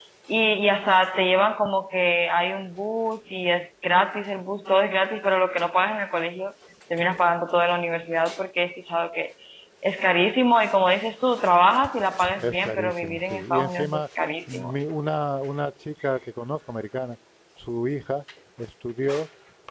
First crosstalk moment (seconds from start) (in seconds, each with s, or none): 12.4 s